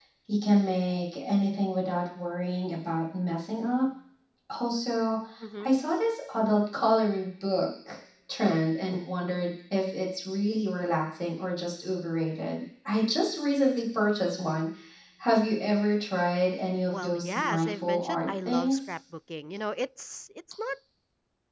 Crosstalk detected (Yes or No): Yes